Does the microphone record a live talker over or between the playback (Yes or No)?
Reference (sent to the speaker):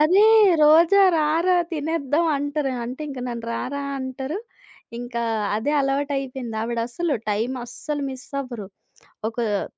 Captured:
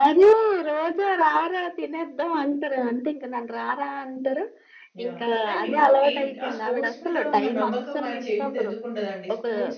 Yes